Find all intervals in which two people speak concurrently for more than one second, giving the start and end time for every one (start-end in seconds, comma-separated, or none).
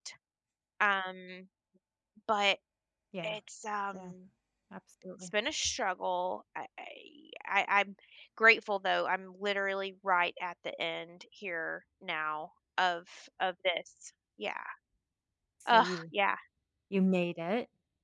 none